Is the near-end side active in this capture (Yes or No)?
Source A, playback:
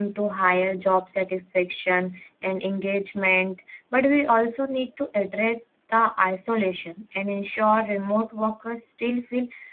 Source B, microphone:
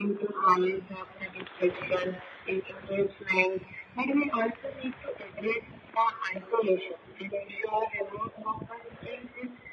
No